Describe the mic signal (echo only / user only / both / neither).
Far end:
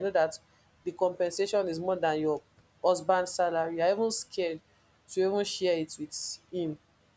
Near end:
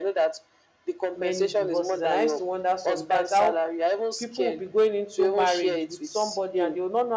both